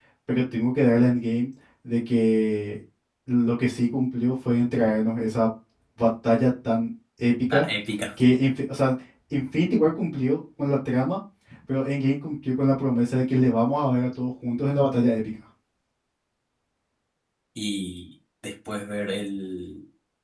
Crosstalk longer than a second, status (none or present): none